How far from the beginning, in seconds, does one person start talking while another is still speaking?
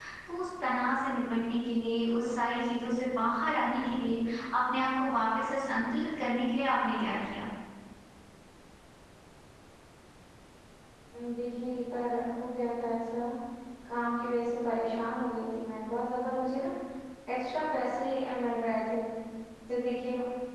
none

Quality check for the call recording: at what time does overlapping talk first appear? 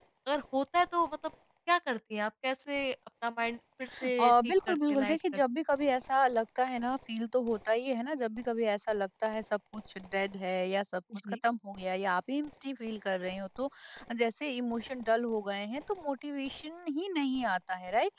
4.2 s

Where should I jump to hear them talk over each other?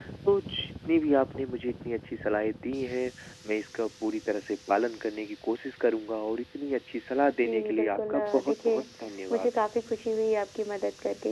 7.5 s

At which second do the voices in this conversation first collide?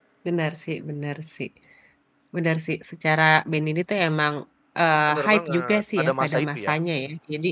5.1 s

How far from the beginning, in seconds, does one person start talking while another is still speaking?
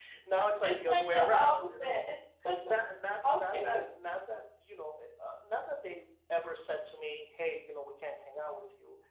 0.6 s

